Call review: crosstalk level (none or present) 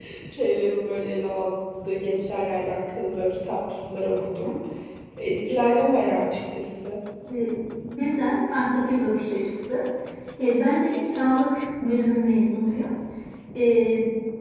none